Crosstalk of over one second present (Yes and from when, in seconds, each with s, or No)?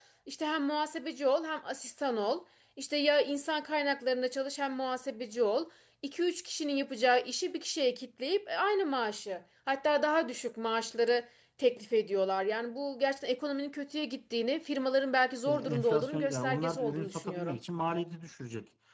Yes, from 15.5 s